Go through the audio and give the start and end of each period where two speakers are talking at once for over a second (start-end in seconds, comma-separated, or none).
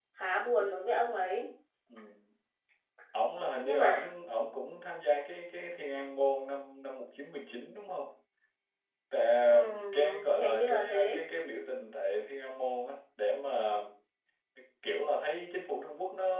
9.9-11.2